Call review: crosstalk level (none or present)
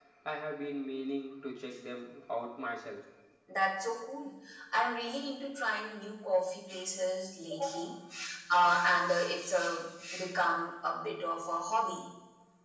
none